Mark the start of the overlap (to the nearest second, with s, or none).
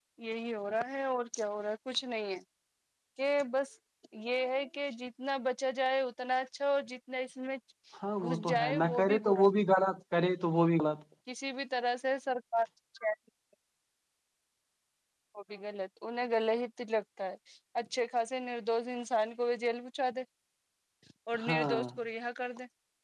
8 s